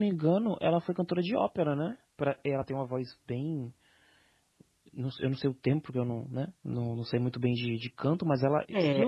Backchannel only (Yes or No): No